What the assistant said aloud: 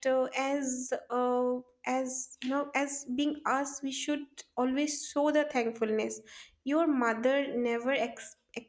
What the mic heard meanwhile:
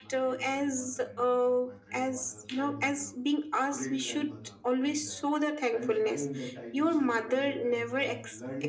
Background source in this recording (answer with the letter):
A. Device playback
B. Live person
B